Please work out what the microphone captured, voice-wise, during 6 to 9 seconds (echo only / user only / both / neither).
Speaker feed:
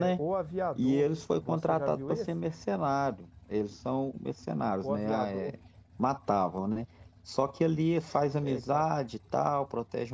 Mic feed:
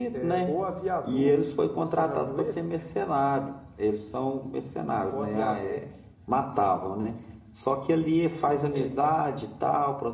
echo only